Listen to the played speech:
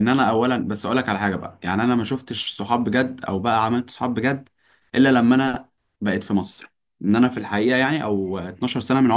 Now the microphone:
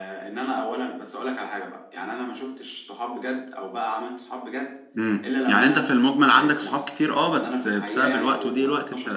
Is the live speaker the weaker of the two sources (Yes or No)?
No